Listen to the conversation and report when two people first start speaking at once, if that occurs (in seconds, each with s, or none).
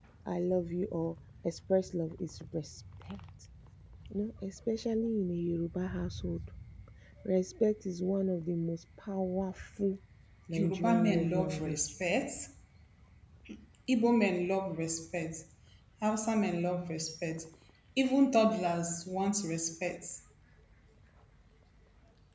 10.6 s